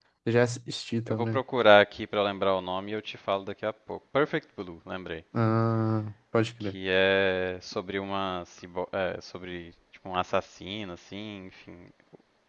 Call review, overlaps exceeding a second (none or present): none